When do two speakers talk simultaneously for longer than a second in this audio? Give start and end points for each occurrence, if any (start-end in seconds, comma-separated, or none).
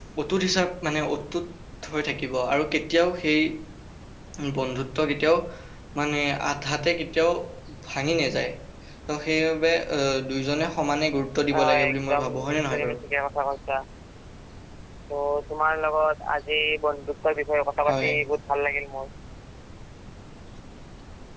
11.7-13.0